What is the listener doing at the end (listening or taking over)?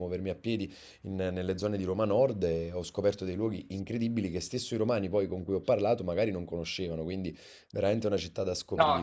taking over